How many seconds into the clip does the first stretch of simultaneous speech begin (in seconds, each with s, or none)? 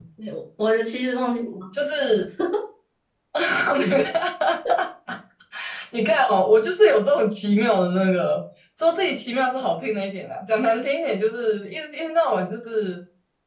none